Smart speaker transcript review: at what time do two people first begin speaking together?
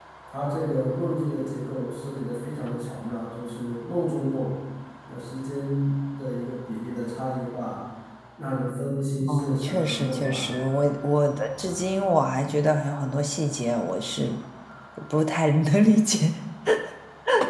9 s

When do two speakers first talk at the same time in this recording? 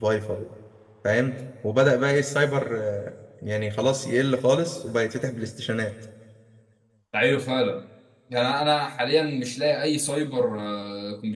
none

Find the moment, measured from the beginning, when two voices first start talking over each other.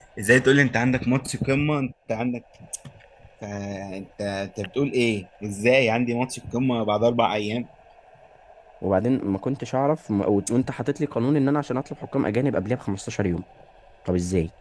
none

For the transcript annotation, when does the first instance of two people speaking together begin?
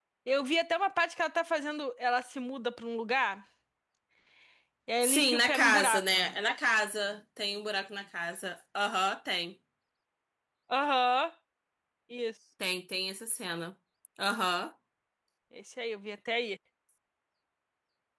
5 s

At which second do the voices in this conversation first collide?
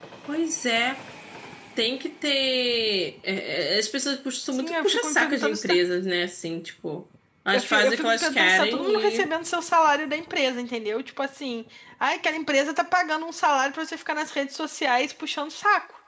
5 s

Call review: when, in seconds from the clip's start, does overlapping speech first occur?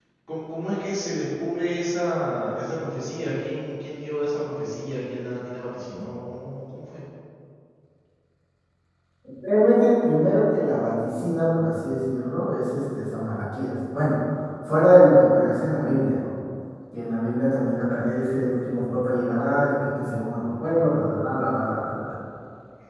none

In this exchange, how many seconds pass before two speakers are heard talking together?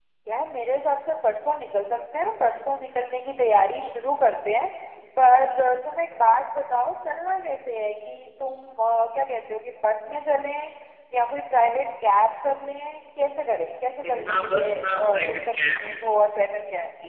14 s

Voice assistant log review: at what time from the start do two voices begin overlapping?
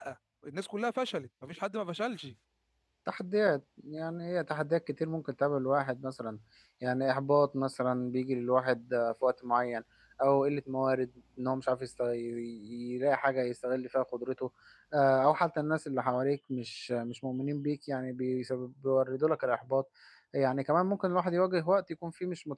none

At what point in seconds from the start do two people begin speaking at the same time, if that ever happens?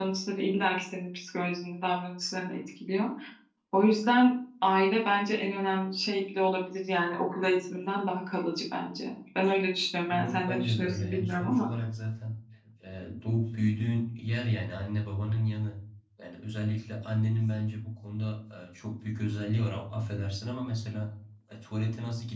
10 s

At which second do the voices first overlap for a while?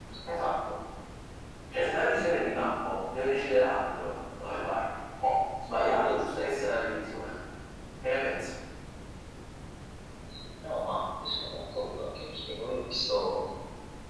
none

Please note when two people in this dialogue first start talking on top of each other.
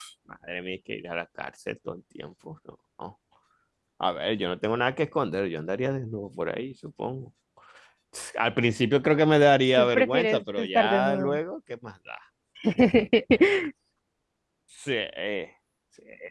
10 s

